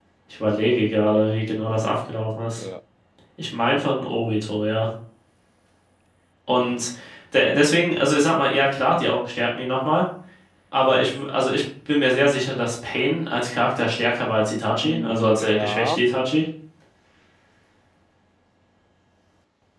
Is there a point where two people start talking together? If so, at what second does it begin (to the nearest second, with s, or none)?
15 s